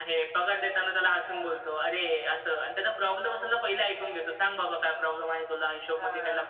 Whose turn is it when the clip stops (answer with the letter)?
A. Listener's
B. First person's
B